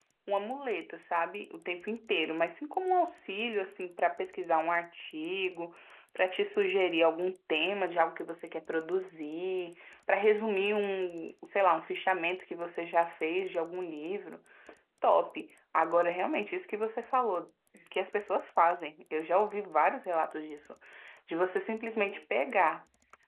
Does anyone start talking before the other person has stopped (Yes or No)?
No